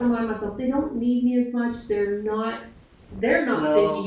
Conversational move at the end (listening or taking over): listening